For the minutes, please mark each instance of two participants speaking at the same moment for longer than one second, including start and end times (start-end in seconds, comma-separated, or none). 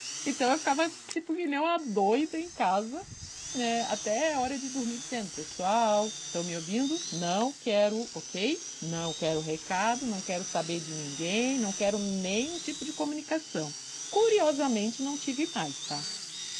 none